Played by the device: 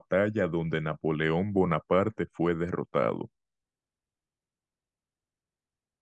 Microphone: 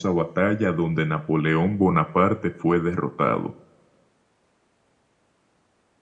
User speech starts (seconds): none

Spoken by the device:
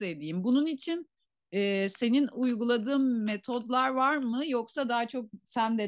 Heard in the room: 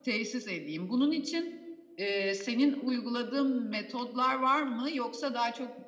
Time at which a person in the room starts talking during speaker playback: none

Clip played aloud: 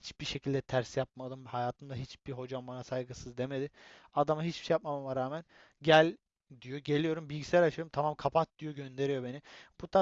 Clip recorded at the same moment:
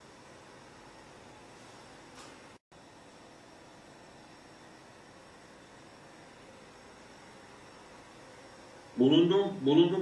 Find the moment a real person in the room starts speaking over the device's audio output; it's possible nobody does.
8.9 s

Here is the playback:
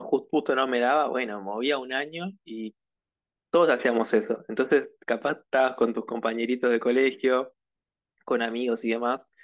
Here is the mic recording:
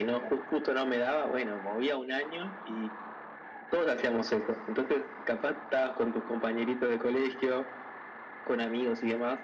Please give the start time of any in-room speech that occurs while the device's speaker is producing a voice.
none

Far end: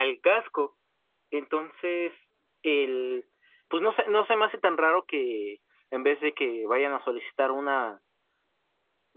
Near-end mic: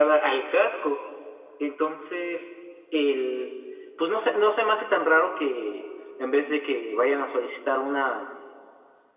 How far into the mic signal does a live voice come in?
none

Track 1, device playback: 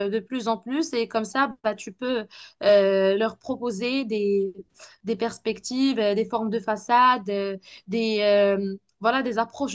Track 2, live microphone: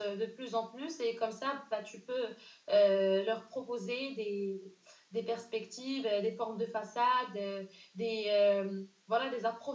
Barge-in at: none

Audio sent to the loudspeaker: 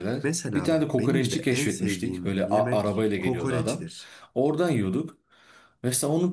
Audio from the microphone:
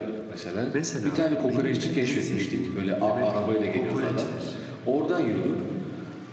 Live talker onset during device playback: 1.2 s

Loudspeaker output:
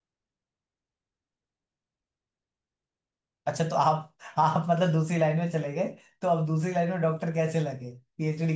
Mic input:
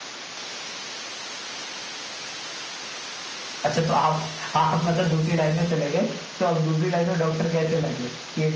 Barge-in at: none

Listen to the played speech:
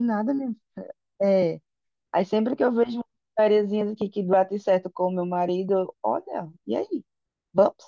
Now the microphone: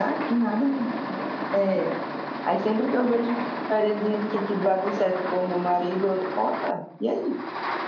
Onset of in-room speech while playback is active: none

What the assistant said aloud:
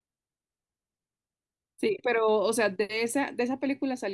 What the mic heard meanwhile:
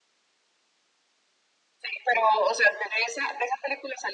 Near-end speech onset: none

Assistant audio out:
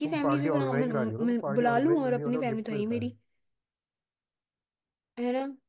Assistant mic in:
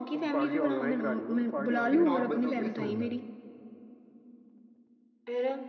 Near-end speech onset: 1.9 s

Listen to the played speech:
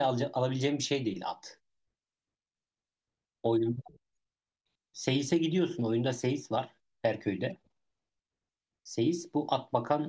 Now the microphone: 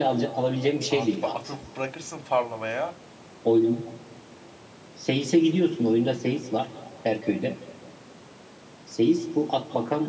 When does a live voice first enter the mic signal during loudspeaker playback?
0.9 s

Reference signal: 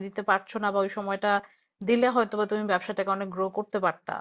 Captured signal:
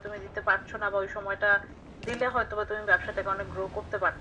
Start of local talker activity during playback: none

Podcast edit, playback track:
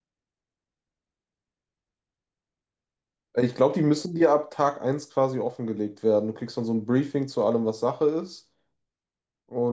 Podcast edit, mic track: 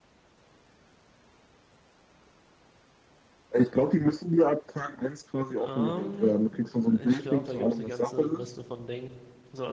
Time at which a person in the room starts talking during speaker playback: 5.6 s

